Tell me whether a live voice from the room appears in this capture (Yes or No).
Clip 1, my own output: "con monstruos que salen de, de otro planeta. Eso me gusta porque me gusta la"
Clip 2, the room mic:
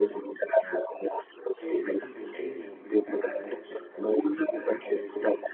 Yes